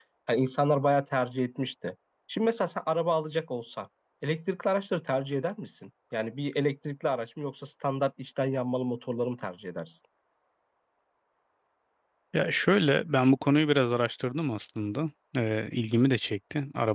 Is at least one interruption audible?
No

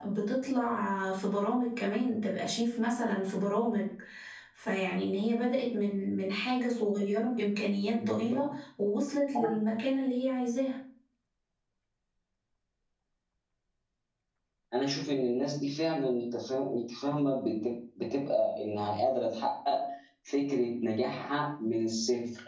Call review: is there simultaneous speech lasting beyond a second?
No

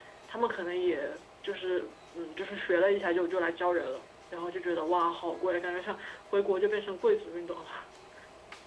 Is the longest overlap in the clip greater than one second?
No

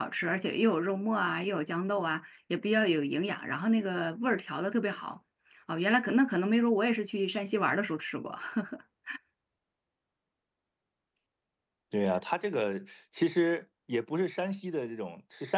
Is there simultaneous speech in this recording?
No

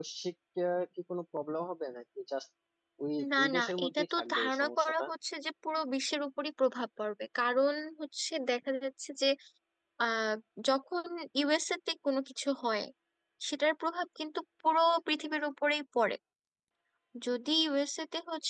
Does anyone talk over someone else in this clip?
Yes, from 3.4 s

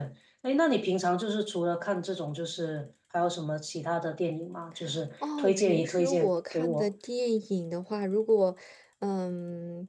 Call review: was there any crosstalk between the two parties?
Yes, from 5.2 s

